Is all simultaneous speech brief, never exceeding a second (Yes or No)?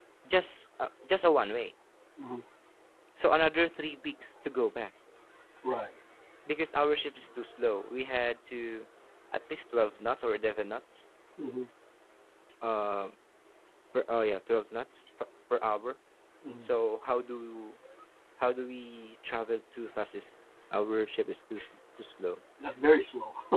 Yes